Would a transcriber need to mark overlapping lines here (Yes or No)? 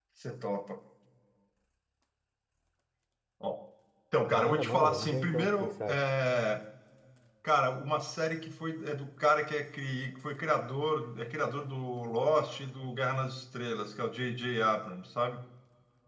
Yes